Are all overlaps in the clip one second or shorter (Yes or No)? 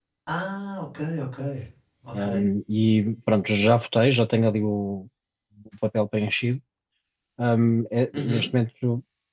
Yes